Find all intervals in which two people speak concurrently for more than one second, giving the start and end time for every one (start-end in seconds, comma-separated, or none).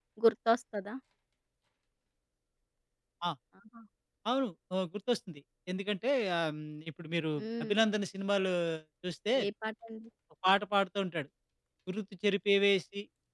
none